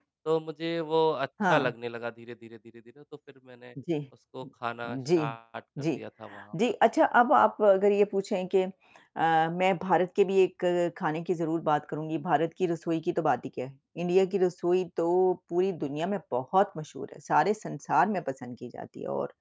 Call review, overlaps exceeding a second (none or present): none